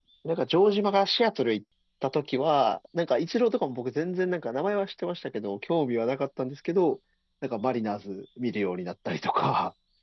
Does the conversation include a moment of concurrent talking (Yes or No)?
No